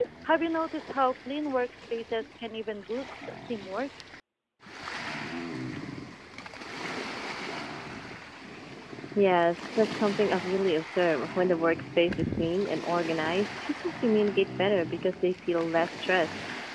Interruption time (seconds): none

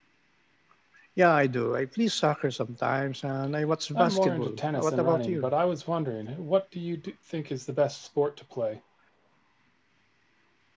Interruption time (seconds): 4 s

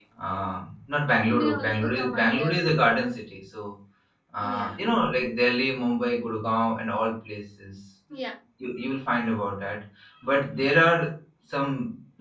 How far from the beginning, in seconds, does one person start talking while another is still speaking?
1 s

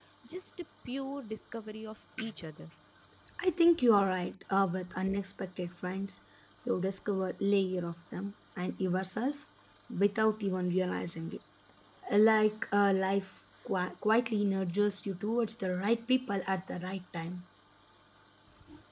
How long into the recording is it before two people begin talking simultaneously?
none

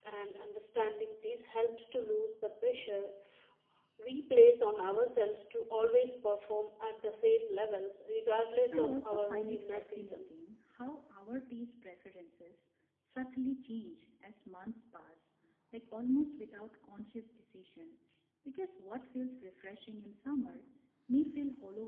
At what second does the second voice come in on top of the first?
9 s

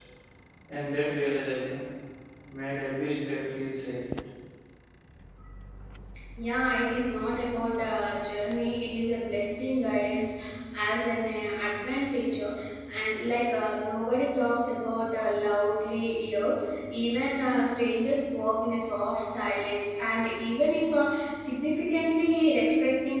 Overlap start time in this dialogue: none

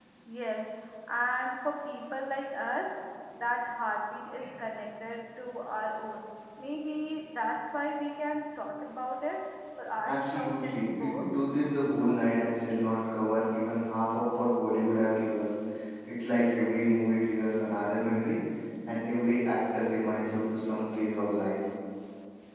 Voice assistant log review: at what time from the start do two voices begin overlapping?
10 s

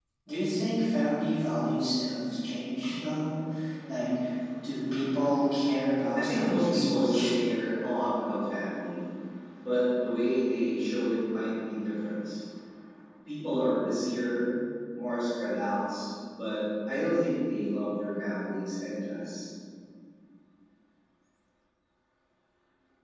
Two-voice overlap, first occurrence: 6 s

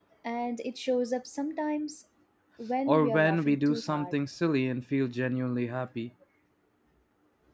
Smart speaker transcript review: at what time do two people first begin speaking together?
3 s

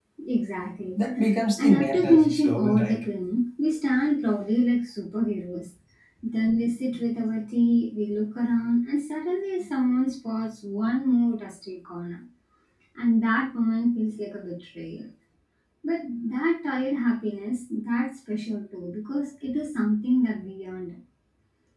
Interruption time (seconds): 2 s

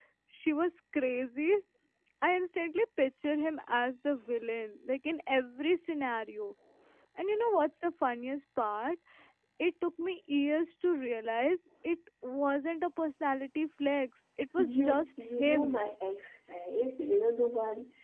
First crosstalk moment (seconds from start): 15 s

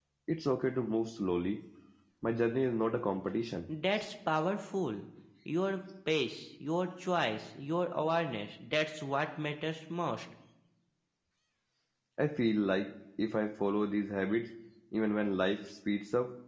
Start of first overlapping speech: none

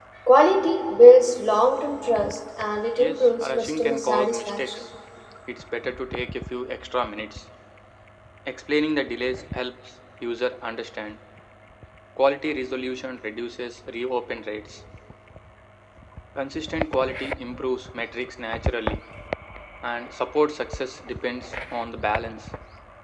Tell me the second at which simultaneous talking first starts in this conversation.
3 s

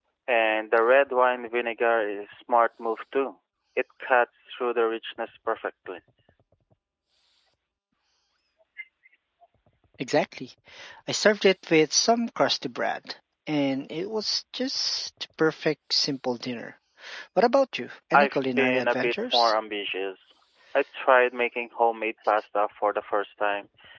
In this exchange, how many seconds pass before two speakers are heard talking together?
18 s

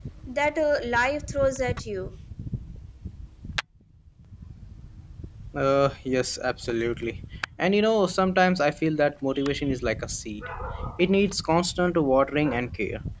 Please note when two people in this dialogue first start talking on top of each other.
none

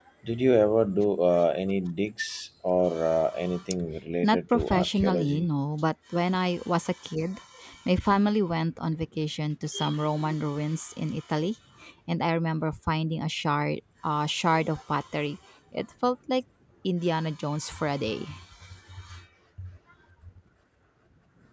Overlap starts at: 4 s

